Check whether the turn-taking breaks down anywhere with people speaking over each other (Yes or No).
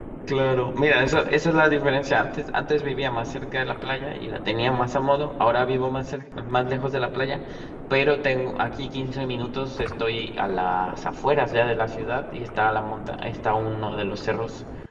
No